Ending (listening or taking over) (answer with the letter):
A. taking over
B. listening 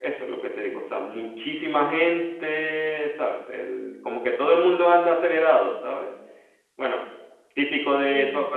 B